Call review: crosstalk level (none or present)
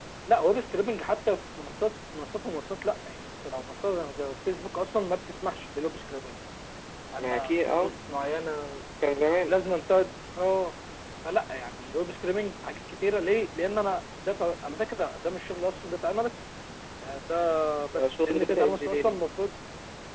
present